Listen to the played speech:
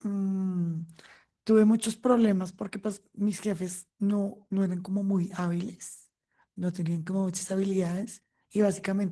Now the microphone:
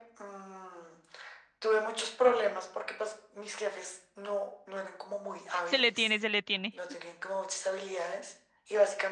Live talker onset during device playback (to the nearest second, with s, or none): 6 s